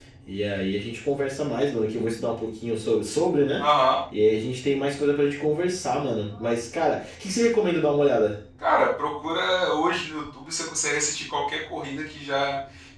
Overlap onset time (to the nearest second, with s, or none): none